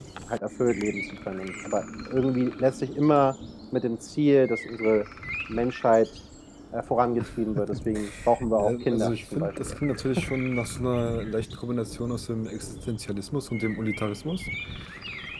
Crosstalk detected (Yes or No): Yes